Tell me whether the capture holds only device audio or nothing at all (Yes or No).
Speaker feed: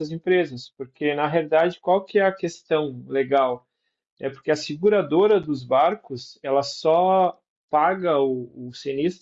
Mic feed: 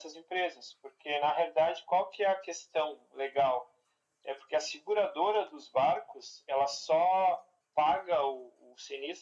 Yes